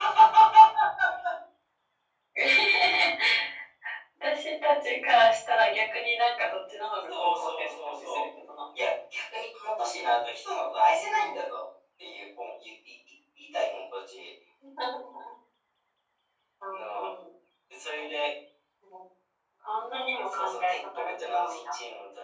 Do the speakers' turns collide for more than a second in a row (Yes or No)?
Yes